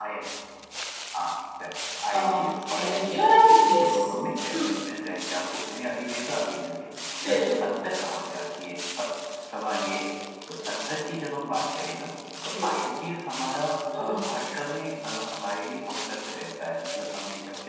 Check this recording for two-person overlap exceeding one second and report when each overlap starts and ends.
2.1-3.4

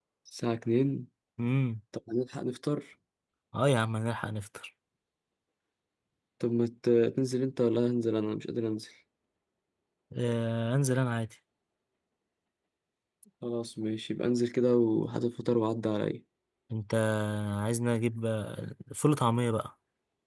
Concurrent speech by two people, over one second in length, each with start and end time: none

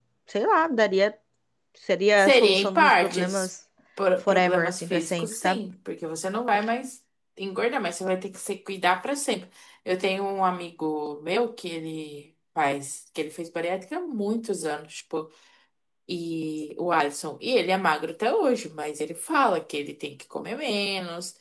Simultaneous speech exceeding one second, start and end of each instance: 2.2-3.5, 4.3-5.6

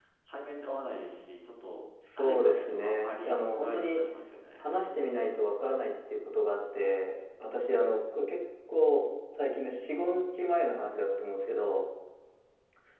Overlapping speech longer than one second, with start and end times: 2.2-4.0

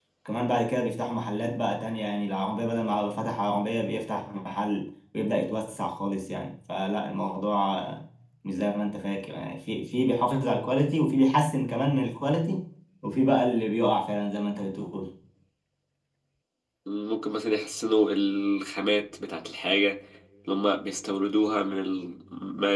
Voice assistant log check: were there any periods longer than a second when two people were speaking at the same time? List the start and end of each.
none

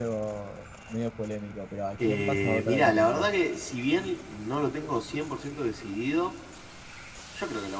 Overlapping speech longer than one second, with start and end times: 2.1-3.3

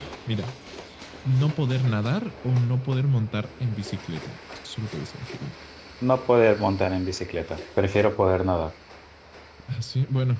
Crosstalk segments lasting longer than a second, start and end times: none

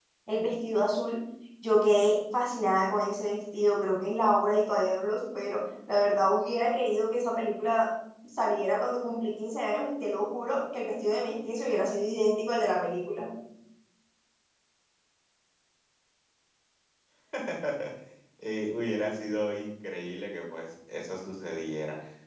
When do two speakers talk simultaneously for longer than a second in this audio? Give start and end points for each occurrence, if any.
none

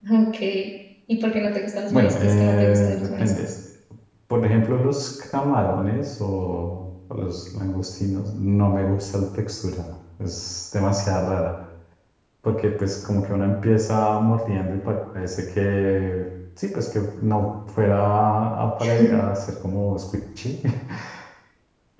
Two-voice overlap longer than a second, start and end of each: 1.9-3.5

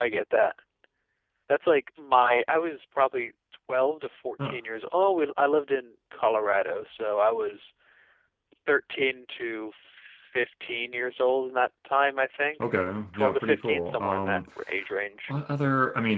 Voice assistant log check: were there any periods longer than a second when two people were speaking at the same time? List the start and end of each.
13.1-14.4

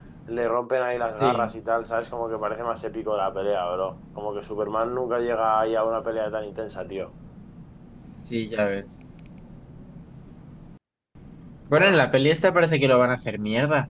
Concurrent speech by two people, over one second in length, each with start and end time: none

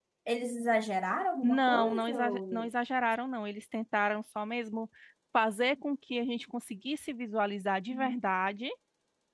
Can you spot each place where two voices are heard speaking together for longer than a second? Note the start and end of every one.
1.4-2.7

